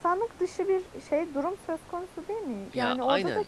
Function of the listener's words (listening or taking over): listening